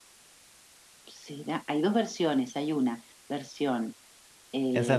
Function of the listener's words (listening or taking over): taking over